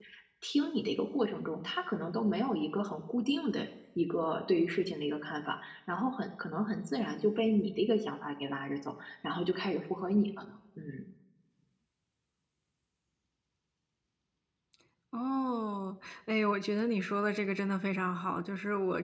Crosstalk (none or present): none